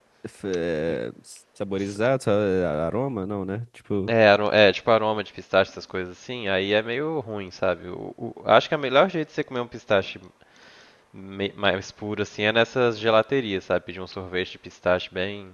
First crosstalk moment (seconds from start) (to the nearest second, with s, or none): none